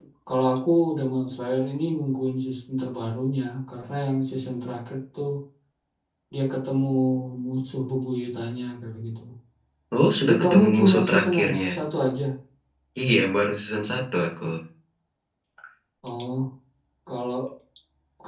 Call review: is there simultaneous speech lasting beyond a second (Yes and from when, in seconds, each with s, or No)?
Yes, from 10.2 s